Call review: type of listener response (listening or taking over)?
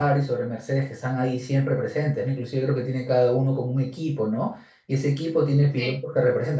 listening